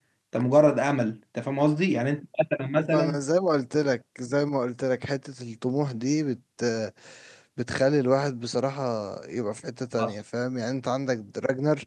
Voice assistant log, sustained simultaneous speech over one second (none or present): none